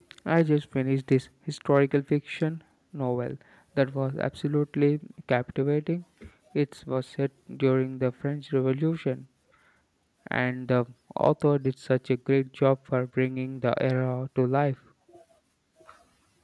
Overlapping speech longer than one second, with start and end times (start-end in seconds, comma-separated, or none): none